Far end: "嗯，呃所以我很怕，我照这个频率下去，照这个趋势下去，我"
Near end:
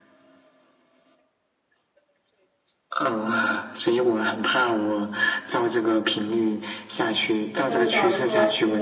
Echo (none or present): present